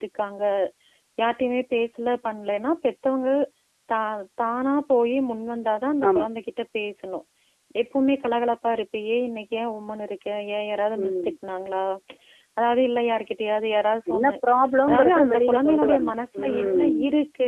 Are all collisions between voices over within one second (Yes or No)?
No